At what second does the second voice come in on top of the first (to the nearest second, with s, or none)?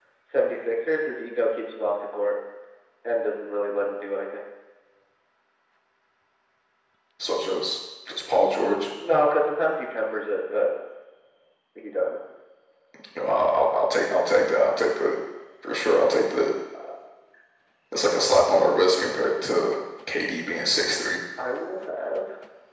none